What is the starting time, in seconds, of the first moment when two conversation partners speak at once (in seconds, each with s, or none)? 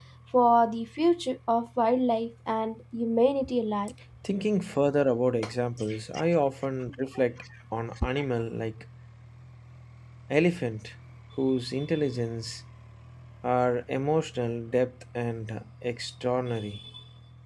none